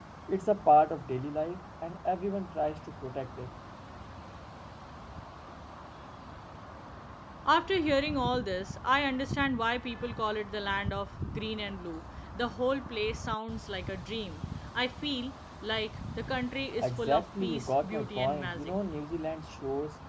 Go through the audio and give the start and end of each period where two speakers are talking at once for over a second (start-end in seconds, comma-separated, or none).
16.8-18.7